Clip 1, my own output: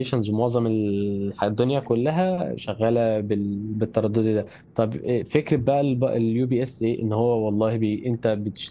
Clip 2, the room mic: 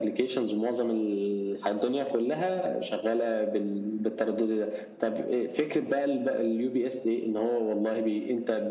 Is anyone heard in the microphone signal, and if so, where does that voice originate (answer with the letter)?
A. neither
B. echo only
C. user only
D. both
B